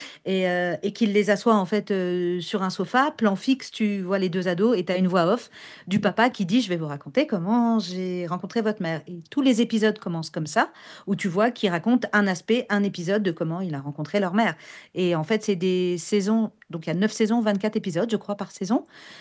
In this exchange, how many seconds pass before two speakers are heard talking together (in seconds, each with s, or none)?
none